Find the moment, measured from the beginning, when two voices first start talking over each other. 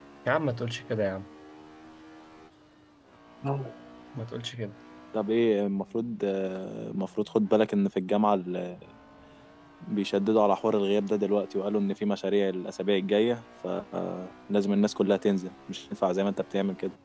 none

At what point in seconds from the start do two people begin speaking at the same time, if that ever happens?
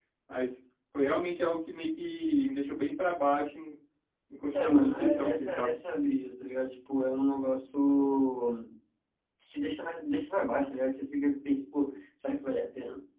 4.5 s

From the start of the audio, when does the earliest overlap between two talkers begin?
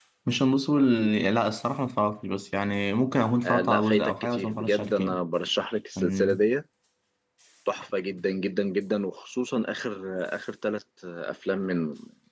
3.4 s

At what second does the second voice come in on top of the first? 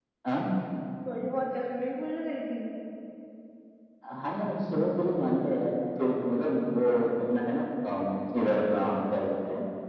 none

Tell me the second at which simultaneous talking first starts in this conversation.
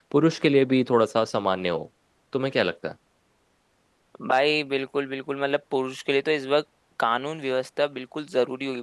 none

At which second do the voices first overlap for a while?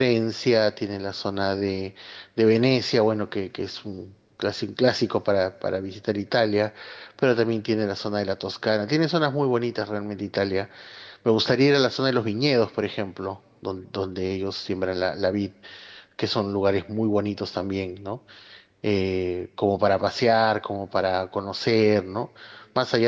none

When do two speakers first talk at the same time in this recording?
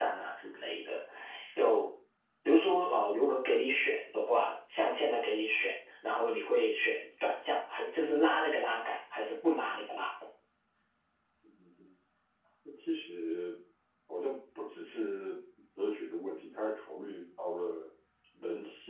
none

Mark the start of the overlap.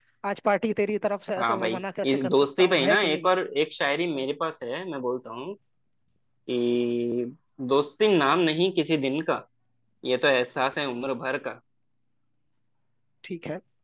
1.4 s

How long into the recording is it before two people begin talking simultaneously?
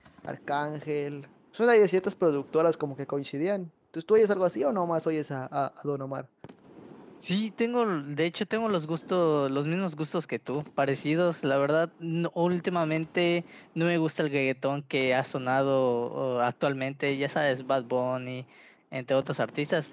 none

